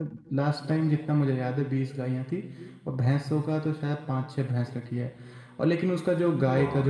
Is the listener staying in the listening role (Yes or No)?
Yes